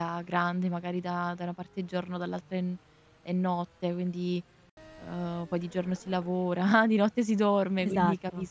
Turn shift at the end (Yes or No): No